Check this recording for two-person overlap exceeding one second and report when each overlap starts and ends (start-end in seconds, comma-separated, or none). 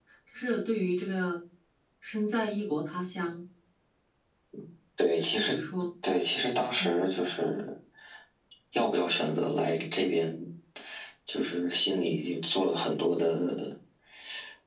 none